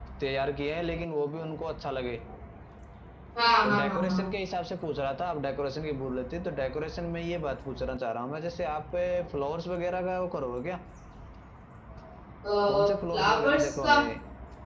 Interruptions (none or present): present